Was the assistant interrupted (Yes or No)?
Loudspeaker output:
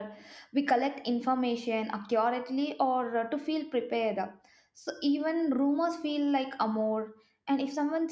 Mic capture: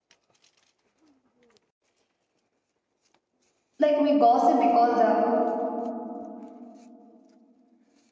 Yes